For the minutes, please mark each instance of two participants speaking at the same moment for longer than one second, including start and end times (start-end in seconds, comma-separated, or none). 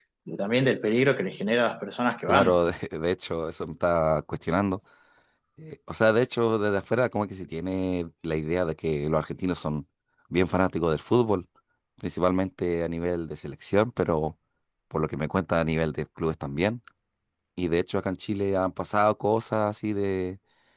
none